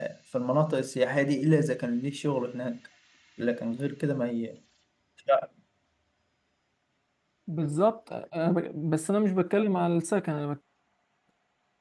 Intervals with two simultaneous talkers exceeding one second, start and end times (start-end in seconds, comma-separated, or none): none